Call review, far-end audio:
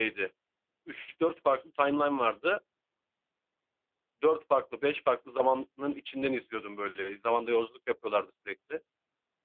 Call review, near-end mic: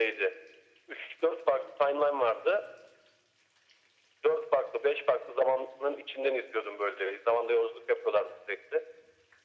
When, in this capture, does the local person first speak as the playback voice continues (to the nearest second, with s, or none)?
none